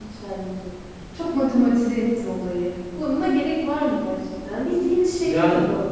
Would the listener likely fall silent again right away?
Yes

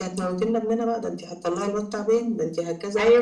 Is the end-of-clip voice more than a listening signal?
Yes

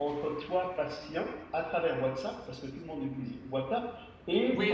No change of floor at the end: No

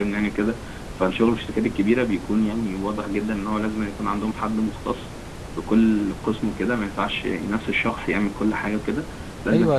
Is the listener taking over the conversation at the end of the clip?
Yes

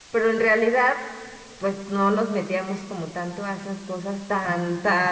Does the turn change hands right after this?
No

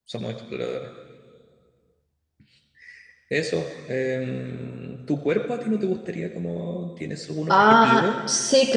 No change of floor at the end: No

